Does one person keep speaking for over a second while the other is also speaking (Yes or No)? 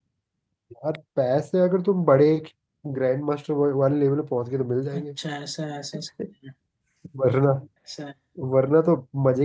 No